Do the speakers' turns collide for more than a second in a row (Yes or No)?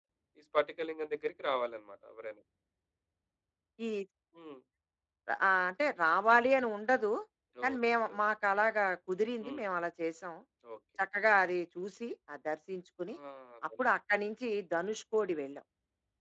No